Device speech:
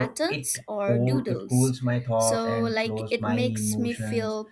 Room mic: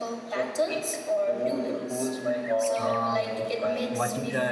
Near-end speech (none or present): present